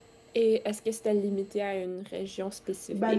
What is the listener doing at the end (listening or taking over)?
taking over